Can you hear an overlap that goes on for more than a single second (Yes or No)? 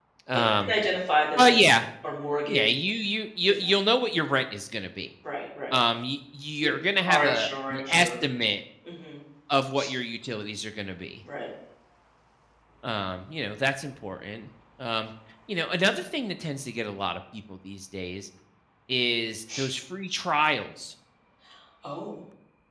Yes